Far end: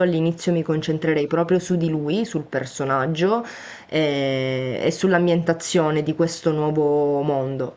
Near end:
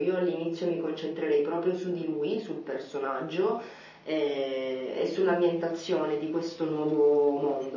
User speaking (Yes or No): No